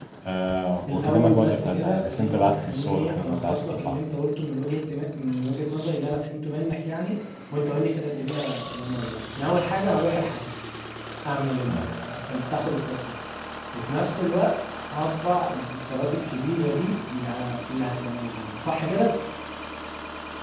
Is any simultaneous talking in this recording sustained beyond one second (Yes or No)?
Yes